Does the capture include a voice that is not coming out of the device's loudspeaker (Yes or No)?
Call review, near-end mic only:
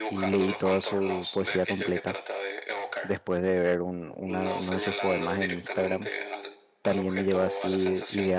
Yes